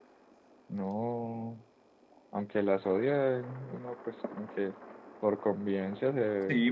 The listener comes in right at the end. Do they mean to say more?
Yes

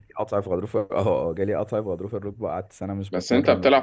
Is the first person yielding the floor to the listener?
Yes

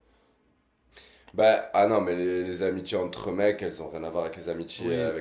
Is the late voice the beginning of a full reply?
No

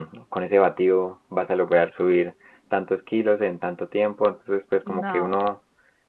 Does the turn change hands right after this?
No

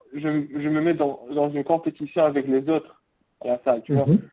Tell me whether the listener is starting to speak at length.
No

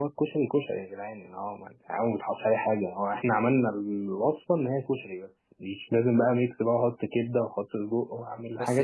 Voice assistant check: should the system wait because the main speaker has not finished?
No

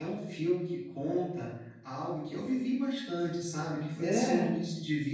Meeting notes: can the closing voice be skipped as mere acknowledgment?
Yes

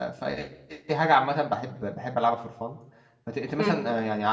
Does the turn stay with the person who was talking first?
Yes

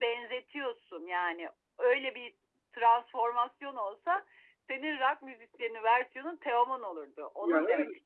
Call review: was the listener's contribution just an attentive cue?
No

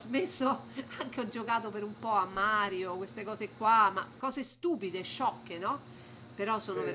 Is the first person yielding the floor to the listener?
No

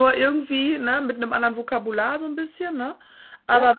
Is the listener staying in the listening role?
Yes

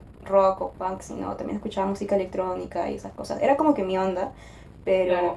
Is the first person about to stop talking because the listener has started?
No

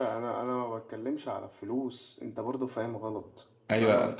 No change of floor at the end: No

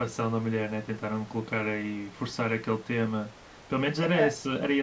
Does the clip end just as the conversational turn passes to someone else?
No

